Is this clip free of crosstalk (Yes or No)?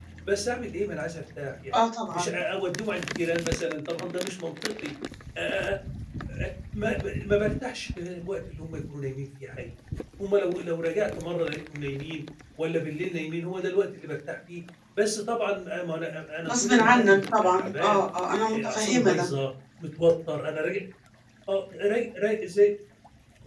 No